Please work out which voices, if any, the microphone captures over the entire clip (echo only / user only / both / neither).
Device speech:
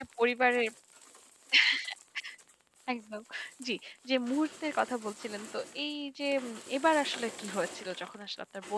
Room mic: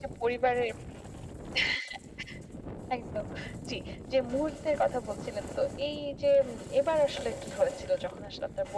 echo only